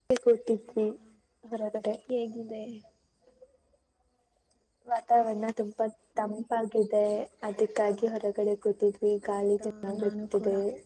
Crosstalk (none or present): present